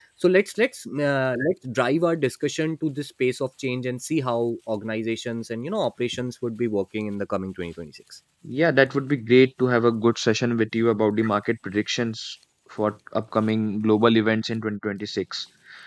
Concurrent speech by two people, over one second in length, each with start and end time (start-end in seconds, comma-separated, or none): none